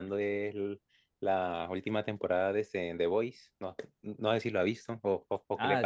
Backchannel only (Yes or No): No